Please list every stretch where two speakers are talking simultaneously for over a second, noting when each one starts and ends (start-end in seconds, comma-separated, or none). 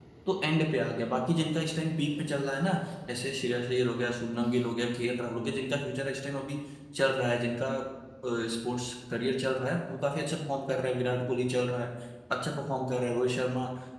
none